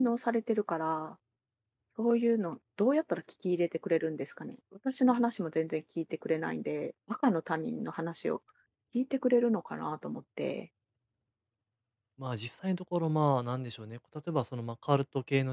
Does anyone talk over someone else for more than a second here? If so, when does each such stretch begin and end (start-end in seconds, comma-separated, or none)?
none